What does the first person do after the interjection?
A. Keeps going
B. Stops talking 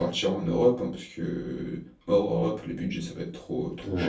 B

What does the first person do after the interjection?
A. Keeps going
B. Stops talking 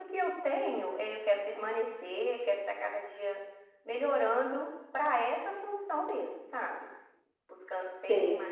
A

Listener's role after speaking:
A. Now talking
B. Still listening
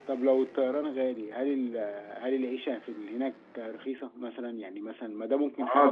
A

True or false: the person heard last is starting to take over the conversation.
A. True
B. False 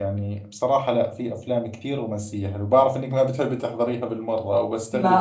A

